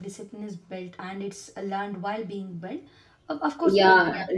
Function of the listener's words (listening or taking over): taking over